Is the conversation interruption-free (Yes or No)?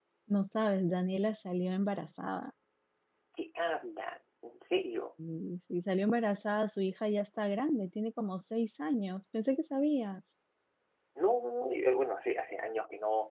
Yes